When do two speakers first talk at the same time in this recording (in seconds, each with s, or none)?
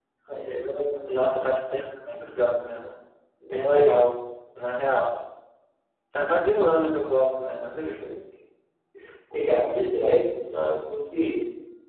none